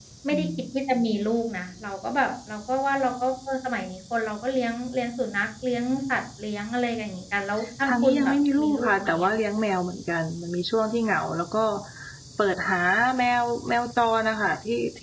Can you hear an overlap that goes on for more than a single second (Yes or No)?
Yes